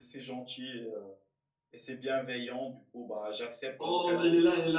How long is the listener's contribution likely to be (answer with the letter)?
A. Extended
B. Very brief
A